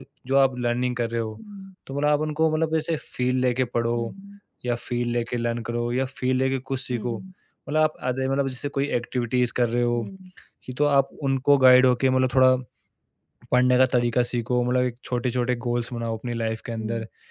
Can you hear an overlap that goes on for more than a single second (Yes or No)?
No